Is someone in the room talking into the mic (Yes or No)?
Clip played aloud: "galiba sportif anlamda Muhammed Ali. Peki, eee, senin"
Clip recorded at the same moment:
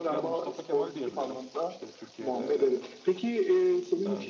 Yes